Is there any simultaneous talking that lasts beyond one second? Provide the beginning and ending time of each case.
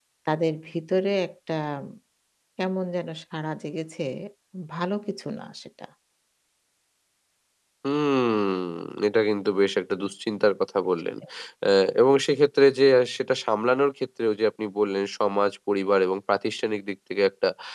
none

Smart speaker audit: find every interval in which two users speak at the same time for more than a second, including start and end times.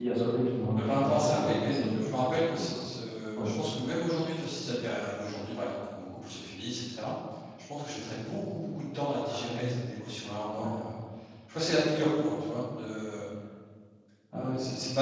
0.8-2.8

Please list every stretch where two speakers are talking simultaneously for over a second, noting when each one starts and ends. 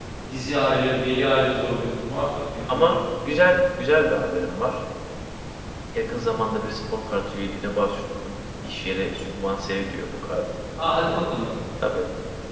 none

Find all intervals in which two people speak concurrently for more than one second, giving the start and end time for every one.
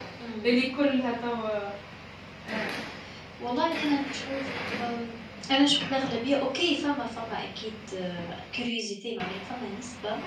none

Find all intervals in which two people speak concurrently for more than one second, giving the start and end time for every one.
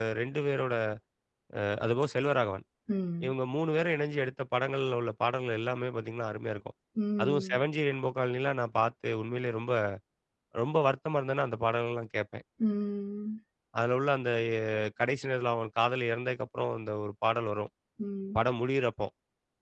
none

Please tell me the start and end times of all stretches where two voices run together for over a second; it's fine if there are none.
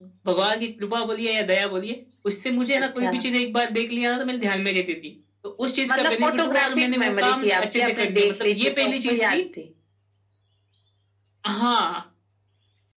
5.9-9.4

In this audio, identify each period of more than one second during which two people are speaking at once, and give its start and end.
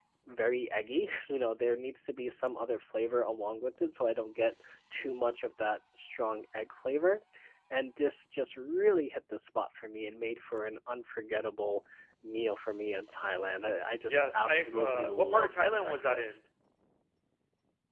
14.1-16.4

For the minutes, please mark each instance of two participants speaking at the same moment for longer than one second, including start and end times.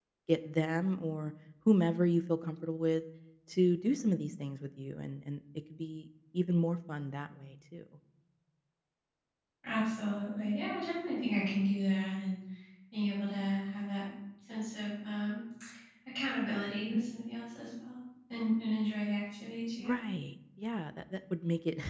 none

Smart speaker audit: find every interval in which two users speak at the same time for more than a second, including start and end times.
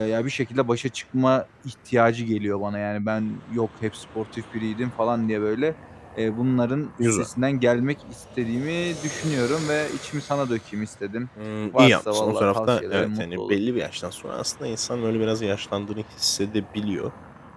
11.7-13.6

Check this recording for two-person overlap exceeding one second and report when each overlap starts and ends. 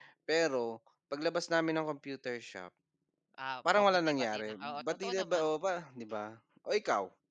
3.8-5.4

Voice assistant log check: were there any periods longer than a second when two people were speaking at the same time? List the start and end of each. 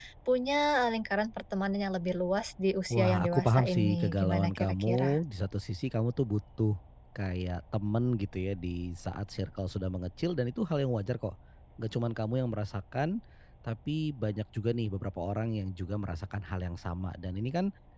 2.9-5.2

